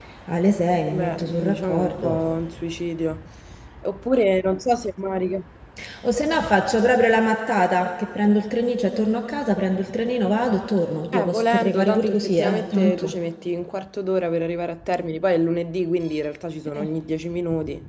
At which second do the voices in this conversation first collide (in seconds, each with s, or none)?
0.9 s